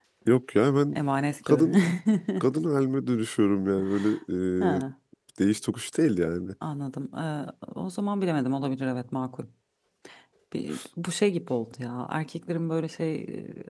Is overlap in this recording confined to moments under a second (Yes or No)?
Yes